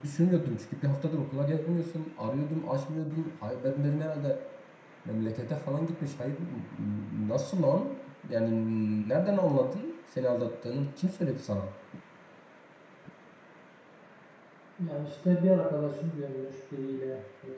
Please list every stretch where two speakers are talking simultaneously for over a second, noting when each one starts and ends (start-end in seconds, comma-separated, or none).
none